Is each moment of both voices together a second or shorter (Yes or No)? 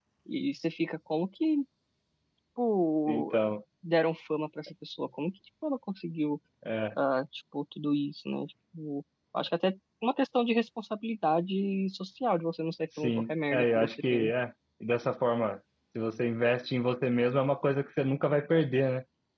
No